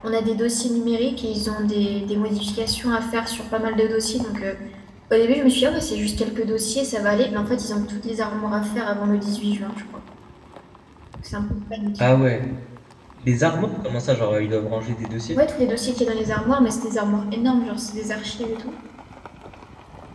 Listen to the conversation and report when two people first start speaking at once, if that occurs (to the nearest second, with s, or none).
none